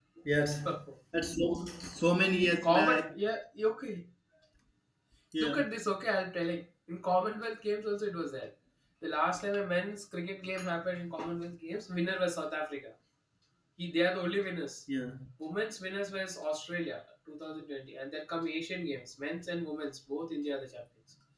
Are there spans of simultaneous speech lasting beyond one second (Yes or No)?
No